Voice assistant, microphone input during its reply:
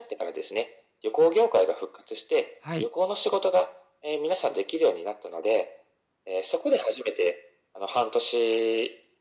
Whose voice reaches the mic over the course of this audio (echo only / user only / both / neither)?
both